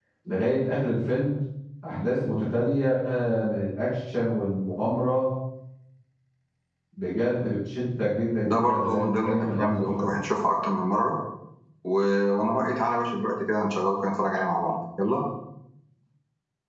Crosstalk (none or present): present